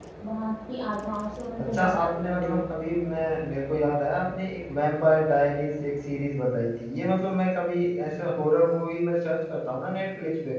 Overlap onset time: 2 s

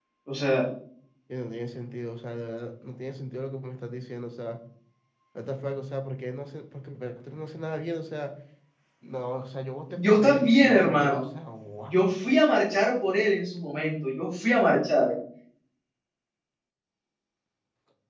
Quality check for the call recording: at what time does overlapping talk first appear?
10 s

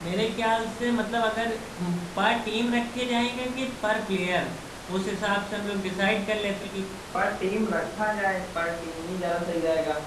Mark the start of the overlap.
none

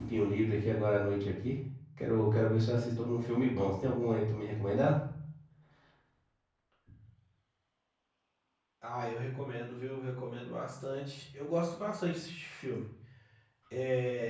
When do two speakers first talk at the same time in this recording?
none

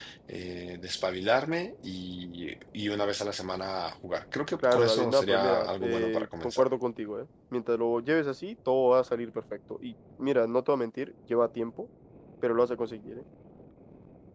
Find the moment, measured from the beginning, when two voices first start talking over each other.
5 s

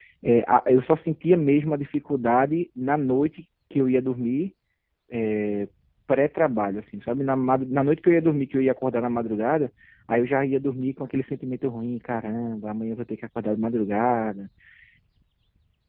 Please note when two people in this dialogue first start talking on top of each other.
none

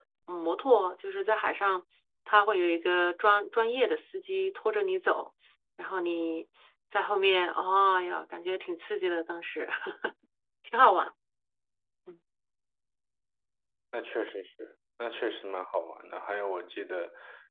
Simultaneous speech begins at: none

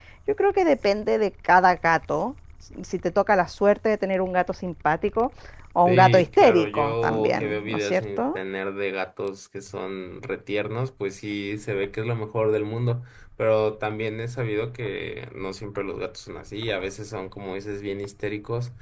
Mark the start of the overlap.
6 s

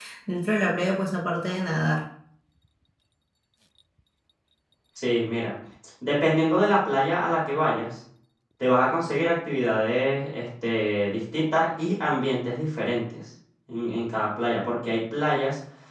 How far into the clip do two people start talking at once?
none

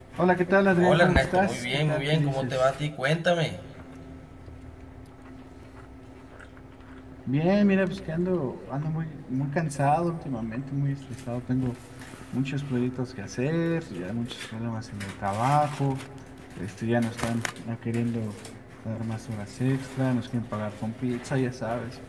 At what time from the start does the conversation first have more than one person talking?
1 s

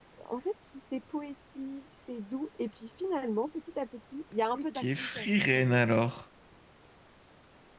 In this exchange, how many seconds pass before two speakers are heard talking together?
5 s

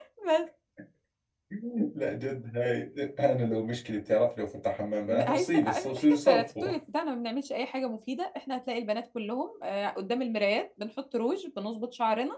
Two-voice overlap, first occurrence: 5 s

